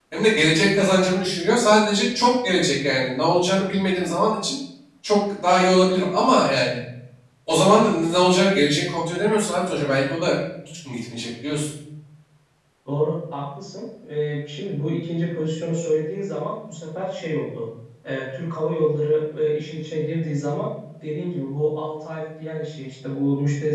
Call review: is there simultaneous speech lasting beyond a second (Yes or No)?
No